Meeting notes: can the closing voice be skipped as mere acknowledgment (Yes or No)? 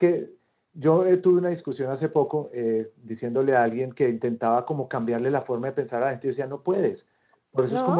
Yes